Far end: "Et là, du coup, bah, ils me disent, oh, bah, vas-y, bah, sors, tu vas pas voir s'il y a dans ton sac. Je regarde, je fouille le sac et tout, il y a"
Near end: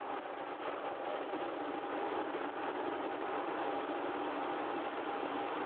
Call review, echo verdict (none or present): none